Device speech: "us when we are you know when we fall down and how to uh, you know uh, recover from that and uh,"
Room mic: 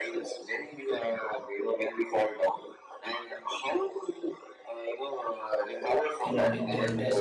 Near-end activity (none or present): present